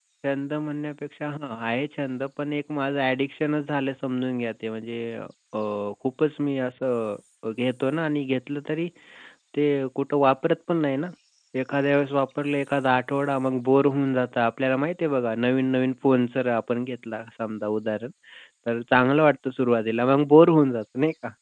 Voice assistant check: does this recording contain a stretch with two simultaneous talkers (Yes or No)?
No